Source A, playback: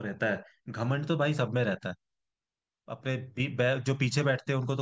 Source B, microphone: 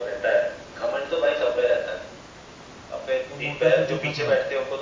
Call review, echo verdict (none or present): present